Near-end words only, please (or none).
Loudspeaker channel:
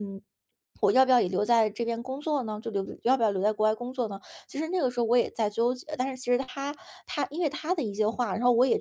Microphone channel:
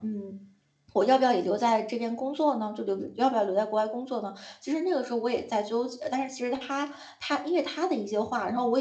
none